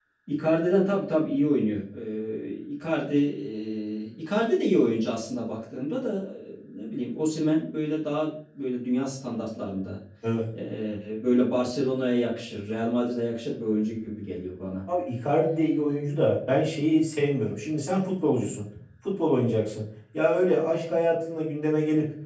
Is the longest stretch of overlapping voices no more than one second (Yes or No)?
Yes